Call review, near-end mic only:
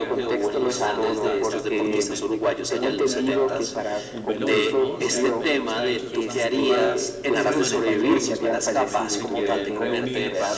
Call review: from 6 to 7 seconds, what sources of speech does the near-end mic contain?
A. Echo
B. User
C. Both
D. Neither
C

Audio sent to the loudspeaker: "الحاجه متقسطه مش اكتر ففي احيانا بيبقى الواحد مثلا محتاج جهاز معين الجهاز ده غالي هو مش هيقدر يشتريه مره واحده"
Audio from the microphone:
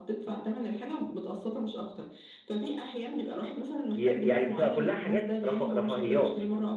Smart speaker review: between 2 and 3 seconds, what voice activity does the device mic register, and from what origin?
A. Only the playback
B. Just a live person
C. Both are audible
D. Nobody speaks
A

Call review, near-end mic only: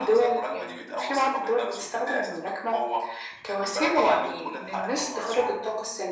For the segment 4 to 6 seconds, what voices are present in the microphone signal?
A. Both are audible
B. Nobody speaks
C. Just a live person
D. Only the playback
D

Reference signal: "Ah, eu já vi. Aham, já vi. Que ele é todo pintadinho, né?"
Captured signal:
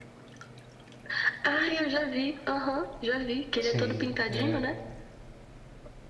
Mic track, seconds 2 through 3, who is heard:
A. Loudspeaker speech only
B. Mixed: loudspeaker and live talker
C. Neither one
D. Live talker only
A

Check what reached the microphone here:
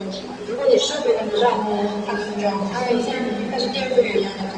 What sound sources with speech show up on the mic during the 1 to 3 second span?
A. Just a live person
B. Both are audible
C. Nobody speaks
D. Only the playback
B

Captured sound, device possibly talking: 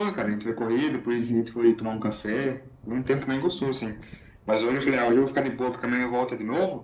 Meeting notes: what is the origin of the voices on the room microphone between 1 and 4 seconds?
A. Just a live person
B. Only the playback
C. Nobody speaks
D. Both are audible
B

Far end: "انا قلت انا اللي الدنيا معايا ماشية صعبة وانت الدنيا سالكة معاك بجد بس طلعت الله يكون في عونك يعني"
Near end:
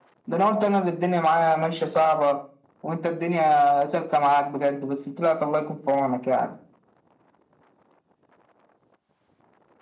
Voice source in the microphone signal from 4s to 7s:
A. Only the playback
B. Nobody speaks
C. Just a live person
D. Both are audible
A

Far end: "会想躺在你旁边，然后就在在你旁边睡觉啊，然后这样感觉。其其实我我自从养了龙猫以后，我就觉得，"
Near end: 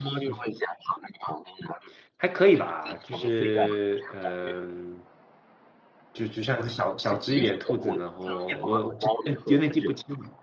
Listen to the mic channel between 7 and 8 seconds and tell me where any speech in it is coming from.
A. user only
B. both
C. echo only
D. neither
B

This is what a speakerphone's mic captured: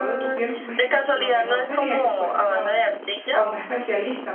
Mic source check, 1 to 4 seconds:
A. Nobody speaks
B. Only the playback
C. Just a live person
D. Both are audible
D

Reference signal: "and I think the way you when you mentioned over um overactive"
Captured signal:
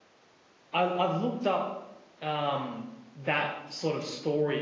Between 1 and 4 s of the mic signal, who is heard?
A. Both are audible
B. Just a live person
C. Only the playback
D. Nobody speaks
B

